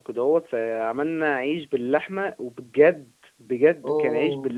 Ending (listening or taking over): listening